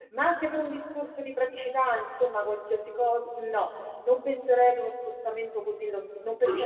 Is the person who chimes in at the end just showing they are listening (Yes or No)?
Yes